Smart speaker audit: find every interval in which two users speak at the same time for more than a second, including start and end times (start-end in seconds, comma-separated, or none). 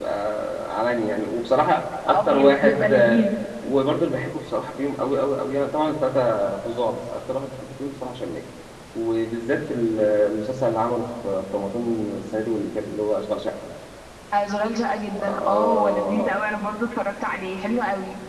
2.1-3.3, 15.1-16.4